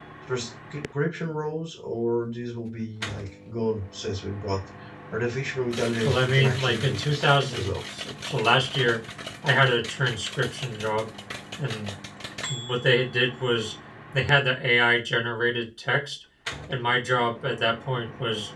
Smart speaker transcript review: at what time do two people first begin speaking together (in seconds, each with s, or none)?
6.0 s